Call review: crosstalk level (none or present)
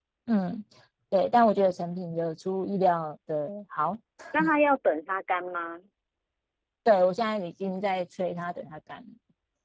none